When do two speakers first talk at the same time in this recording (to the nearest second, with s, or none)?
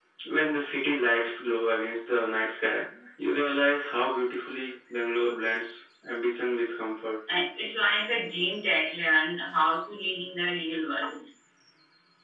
none